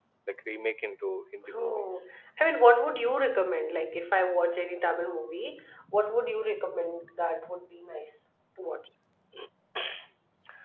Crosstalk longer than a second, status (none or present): none